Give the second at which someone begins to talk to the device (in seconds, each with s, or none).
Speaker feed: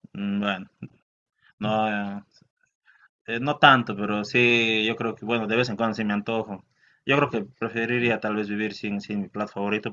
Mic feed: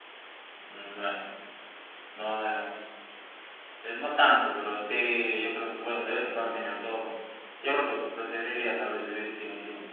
none